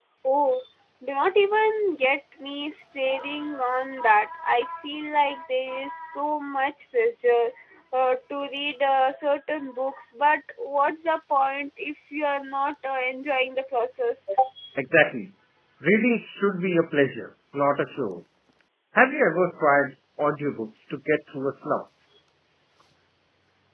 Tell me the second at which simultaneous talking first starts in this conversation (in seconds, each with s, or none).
none